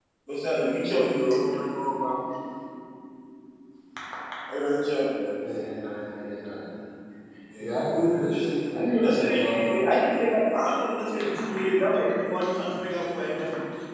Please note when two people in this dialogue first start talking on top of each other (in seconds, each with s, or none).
7.6 s